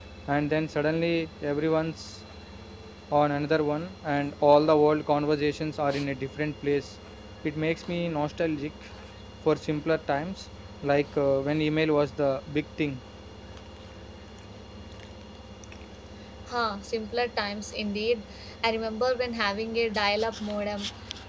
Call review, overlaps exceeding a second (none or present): none